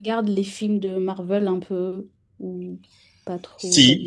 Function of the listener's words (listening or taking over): taking over